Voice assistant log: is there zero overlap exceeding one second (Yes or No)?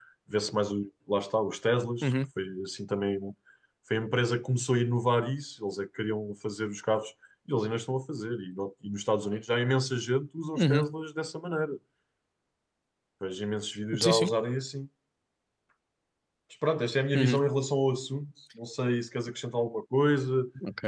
Yes